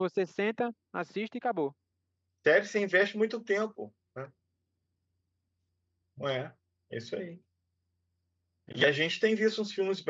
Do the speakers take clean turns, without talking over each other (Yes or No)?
Yes